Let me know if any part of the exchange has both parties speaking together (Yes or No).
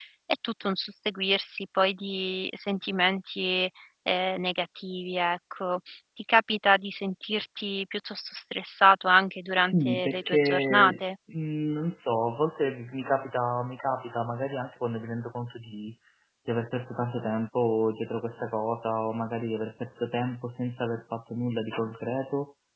Yes